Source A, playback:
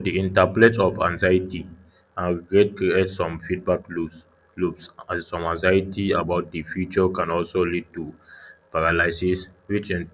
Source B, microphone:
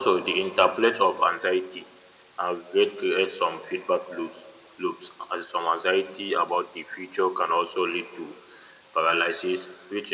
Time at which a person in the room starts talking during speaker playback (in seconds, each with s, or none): none